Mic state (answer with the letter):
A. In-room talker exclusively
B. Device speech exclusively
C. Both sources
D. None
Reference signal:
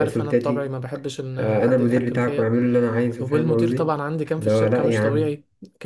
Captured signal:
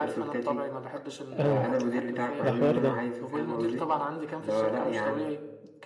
C